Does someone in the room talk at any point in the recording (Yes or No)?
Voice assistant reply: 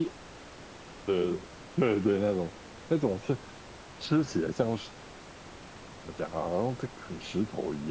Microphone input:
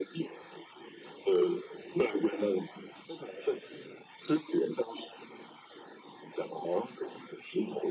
No